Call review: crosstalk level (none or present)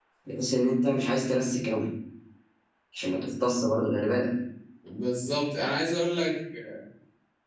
none